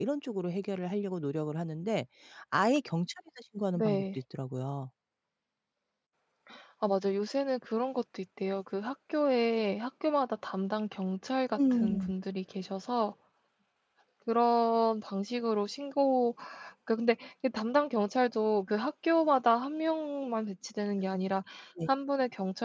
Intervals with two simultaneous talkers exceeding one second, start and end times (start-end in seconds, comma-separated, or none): none